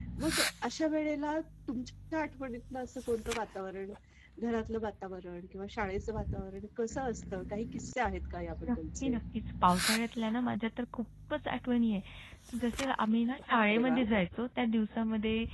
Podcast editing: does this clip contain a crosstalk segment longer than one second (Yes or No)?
No